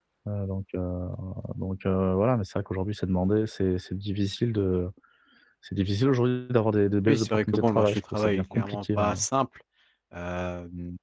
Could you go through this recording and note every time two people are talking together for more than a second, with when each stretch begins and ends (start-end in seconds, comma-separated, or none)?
7.1-9.2